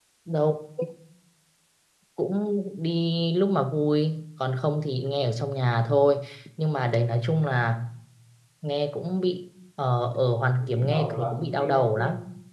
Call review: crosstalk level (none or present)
present